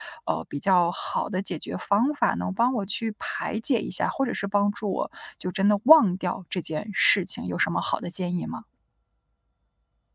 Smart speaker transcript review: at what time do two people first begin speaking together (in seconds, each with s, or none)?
none